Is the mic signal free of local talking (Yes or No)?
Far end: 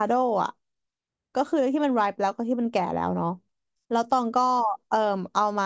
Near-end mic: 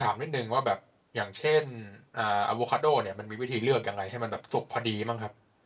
No